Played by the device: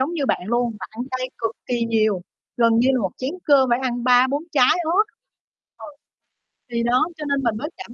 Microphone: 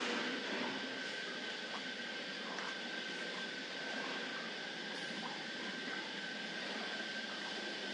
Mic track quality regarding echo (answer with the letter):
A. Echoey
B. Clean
B